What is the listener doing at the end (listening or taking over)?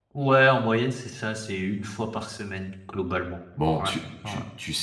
taking over